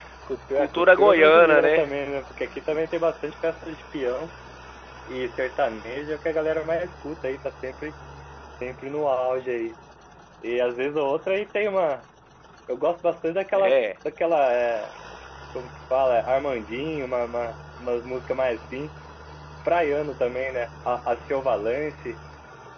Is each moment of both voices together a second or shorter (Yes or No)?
No